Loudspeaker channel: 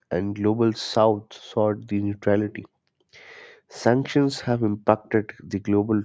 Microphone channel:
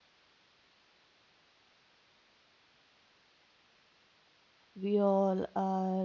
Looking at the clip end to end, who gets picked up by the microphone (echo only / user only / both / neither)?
user only